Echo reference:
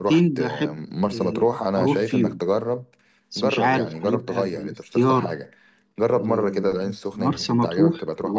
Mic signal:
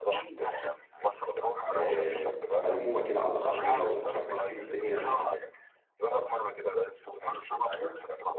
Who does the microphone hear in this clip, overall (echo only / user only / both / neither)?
both